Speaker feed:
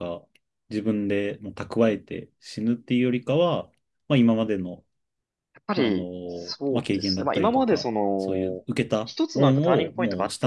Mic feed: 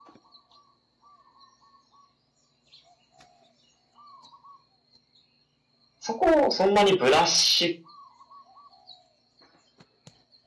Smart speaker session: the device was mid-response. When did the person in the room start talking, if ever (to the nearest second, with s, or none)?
6 s